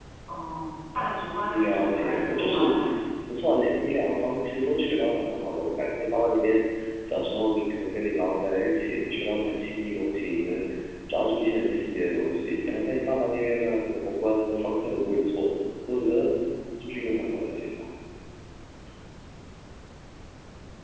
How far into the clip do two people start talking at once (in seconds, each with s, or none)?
1.5 s